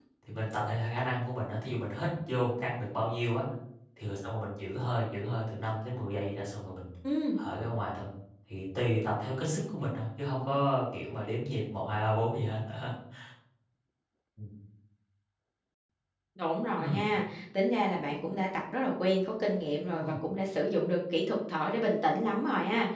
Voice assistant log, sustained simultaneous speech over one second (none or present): none